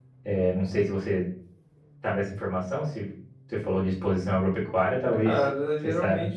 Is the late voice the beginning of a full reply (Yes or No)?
Yes